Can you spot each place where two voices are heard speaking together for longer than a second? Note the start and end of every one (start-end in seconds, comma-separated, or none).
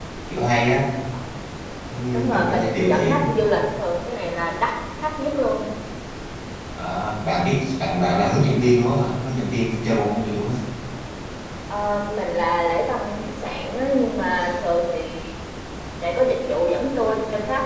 2.1-3.5